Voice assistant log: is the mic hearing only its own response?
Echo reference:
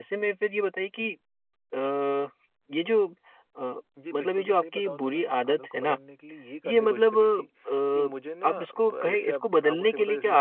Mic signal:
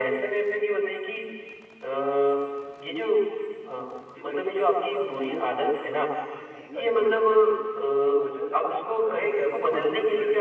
Yes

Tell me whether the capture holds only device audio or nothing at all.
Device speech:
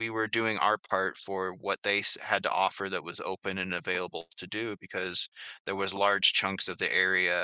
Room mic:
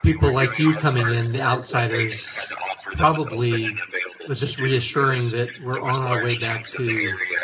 No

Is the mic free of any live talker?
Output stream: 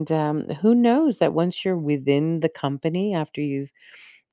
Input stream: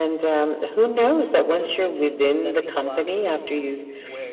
No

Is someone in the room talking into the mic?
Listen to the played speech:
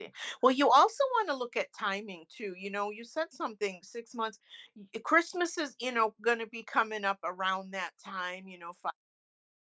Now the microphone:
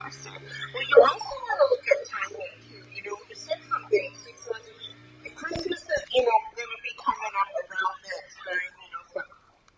No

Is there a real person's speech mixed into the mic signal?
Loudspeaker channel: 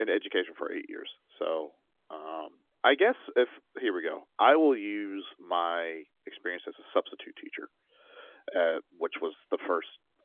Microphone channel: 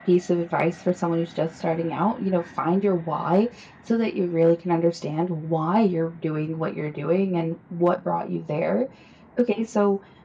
Yes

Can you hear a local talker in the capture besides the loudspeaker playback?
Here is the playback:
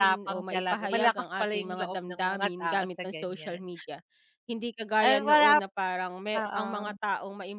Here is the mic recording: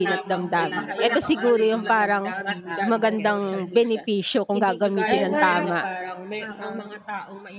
Yes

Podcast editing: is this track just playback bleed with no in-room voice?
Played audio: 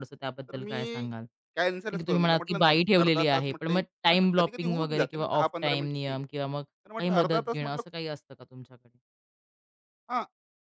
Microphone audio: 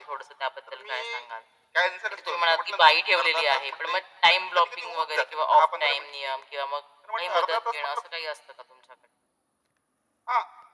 Yes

